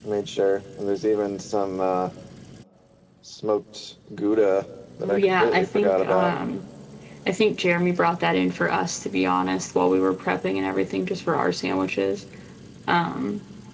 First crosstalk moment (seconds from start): 5.0 s

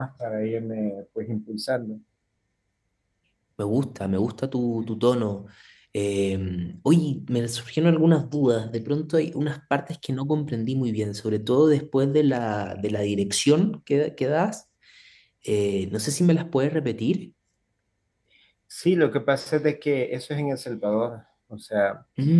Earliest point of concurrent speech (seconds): none

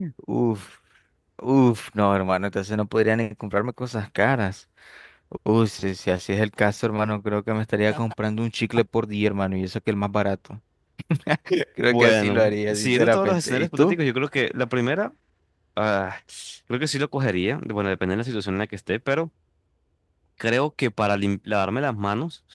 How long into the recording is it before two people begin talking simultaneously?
11.9 s

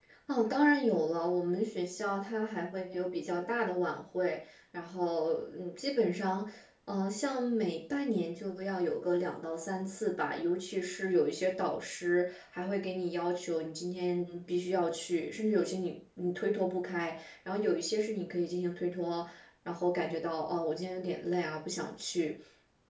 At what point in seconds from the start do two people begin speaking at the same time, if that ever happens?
none

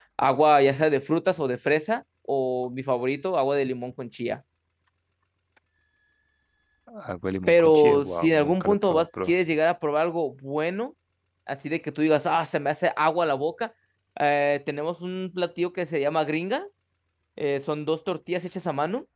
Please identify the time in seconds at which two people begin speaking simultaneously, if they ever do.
7.5 s

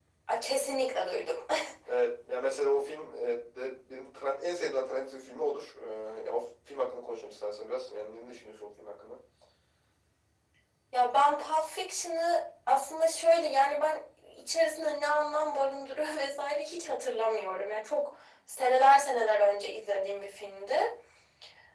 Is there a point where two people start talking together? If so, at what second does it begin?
none

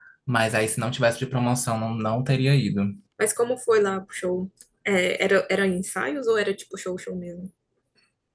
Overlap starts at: none

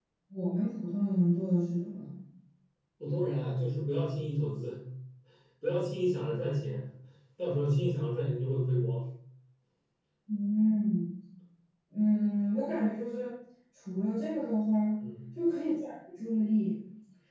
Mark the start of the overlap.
none

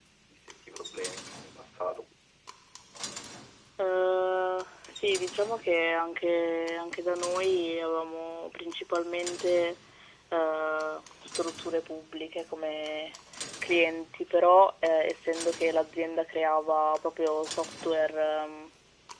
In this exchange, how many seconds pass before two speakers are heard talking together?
none

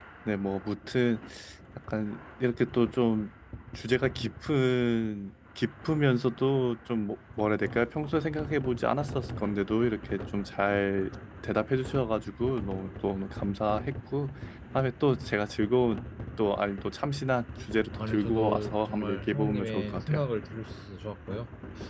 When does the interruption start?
17.9 s

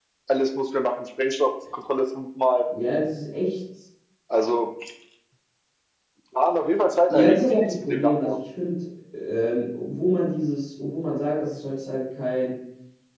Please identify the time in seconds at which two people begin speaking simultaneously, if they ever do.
7.1 s

